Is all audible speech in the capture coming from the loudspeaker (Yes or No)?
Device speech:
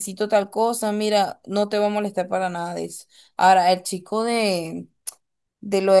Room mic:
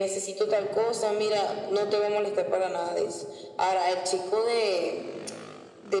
Yes